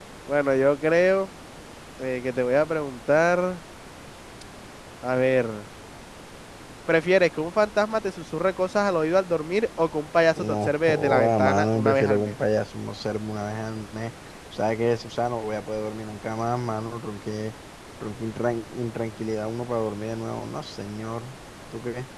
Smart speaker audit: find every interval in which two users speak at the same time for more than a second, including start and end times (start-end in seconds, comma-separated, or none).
10.4-12.4